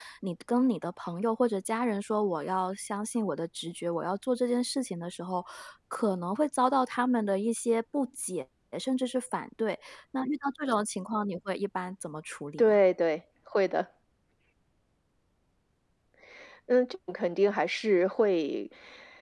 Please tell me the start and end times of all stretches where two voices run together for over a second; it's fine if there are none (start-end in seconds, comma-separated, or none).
none